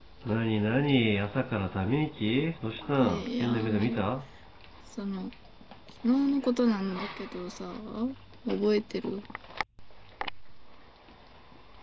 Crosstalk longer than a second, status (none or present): present